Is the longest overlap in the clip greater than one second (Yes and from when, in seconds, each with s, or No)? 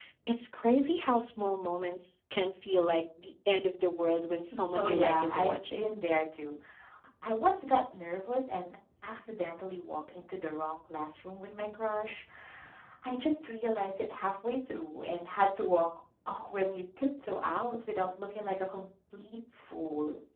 Yes, from 4.5 s